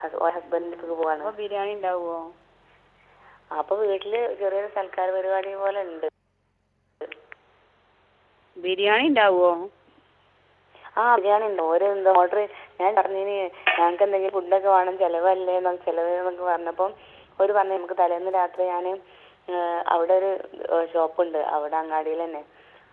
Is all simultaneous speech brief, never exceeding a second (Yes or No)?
Yes